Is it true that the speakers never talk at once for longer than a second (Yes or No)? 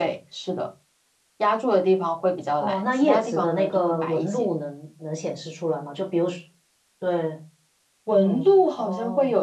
No